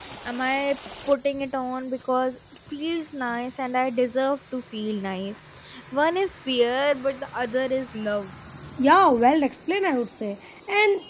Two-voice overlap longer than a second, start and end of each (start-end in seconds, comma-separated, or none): none